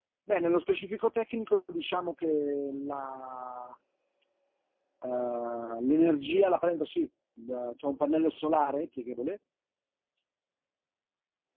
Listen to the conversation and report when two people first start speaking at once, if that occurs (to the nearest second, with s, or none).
none